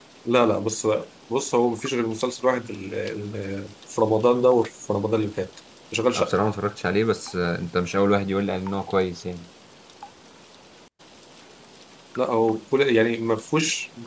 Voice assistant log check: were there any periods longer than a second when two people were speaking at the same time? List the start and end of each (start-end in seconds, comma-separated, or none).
none